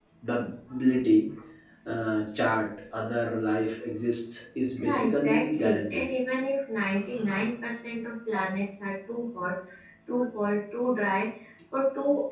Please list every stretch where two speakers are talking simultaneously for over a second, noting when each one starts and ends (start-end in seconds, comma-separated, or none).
4.8-6.0